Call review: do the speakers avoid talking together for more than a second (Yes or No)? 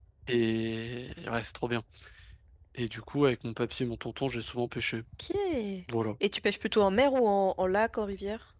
Yes